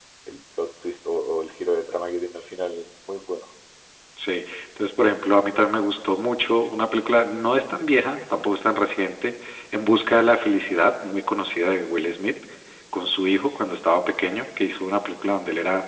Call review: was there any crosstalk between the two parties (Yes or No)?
No